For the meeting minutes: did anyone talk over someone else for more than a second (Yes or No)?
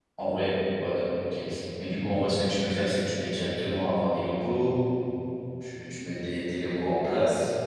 No